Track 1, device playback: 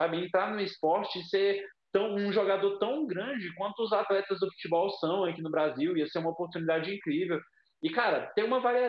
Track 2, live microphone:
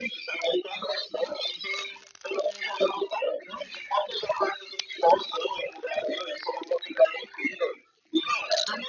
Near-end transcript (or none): none